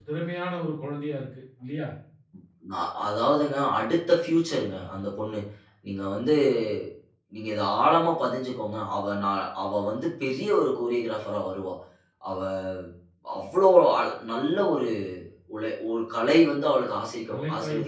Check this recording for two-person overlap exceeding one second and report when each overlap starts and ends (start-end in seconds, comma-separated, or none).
none